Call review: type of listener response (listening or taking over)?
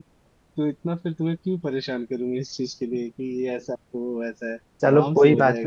taking over